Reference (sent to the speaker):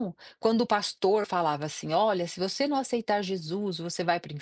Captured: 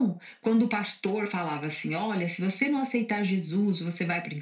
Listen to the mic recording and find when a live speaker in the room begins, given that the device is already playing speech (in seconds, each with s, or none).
none